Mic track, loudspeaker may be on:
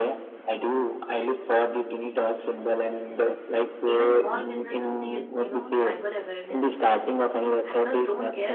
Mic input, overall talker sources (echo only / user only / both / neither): both